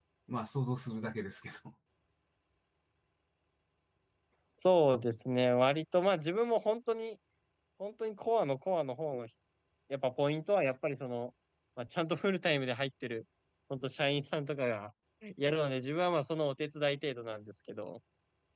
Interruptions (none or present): none